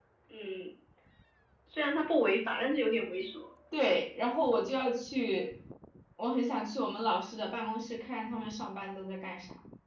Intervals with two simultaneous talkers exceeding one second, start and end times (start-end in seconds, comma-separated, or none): none